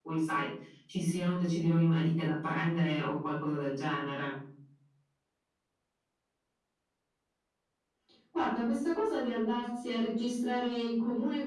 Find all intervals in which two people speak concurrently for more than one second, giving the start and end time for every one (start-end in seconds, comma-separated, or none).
none